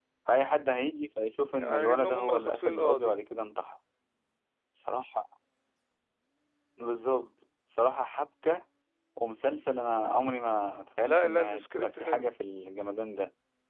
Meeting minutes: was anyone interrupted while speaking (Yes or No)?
Yes